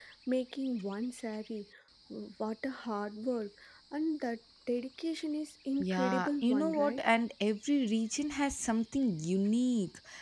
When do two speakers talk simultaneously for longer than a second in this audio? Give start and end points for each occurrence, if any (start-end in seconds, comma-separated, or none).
5.8-7.0